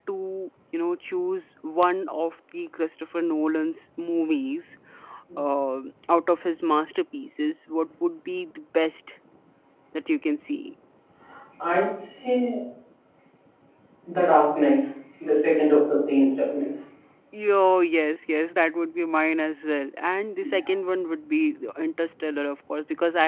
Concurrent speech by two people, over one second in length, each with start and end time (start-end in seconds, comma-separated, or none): none